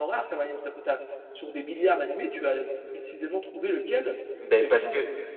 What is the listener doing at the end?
taking over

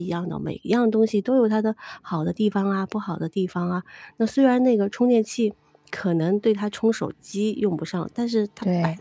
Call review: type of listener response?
listening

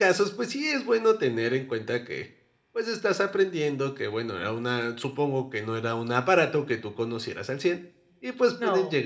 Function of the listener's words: listening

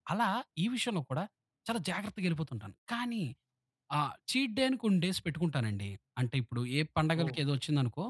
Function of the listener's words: listening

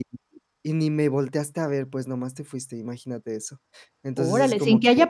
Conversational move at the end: taking over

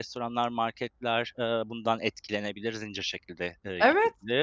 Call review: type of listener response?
taking over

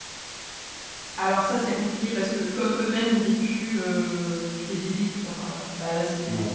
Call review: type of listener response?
listening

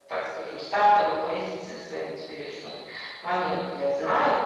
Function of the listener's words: listening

